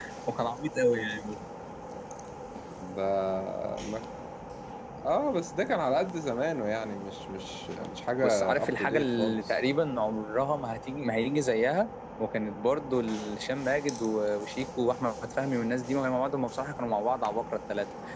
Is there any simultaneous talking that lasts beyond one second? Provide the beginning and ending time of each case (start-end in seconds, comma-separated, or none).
8.2-9.6